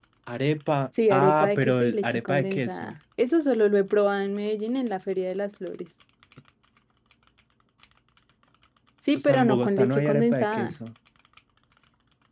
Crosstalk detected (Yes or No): Yes